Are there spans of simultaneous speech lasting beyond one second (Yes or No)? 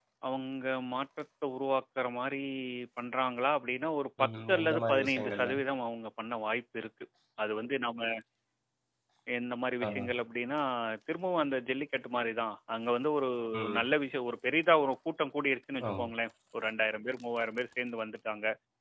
Yes